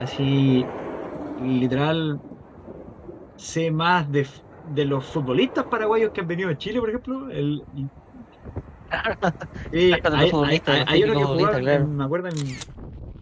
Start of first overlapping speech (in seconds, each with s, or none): 9.9 s